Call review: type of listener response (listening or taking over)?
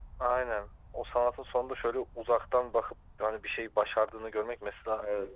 listening